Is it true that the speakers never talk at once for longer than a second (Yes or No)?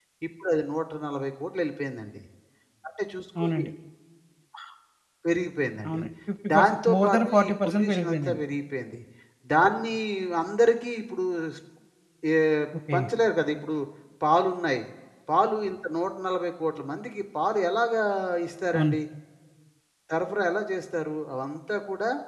No